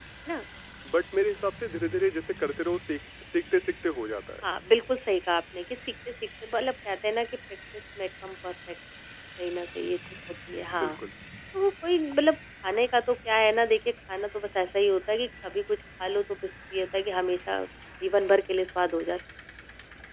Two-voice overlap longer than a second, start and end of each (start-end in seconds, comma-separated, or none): none